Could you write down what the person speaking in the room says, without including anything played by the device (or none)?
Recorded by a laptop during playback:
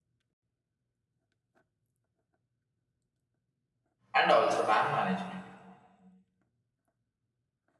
and also dam management,